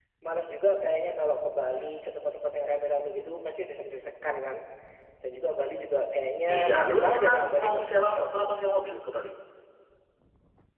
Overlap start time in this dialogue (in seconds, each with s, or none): 6.5 s